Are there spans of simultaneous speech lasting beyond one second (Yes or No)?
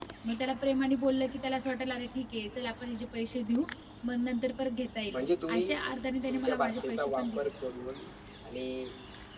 Yes